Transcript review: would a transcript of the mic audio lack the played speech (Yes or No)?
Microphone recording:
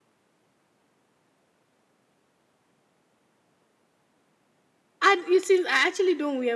Yes